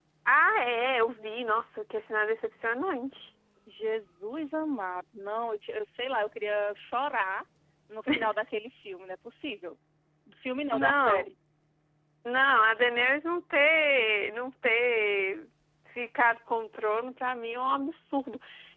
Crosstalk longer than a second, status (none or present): none